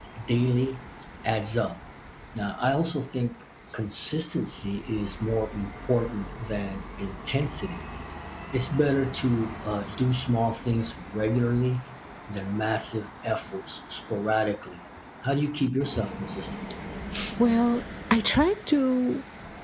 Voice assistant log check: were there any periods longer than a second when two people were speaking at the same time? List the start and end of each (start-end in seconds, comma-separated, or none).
none